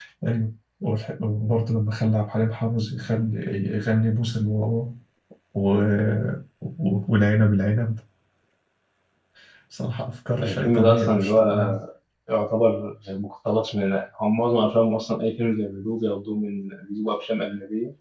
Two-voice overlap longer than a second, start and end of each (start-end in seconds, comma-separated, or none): 10.4-11.8